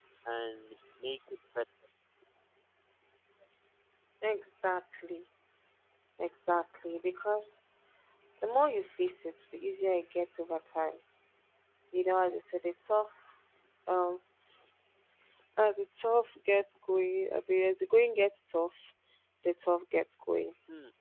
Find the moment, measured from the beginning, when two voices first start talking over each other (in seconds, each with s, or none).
none